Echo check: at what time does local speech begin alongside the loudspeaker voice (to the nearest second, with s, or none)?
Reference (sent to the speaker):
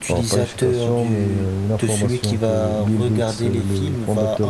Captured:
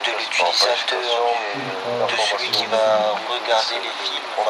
2 s